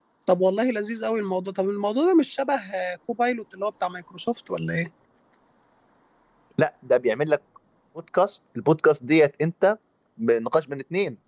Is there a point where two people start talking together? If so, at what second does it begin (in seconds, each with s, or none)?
none